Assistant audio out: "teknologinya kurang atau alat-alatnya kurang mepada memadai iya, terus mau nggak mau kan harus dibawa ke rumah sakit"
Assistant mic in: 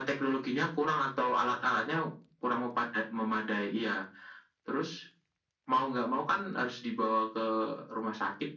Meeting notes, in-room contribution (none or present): none